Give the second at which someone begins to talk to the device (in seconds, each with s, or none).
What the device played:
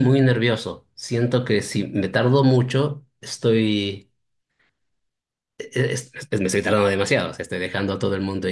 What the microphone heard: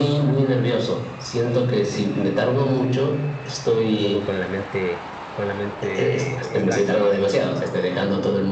3.9 s